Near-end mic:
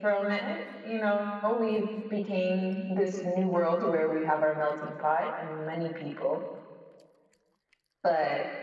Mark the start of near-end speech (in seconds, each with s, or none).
none